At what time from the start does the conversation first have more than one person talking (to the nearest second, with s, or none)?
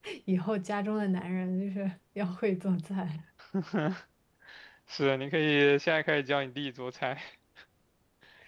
none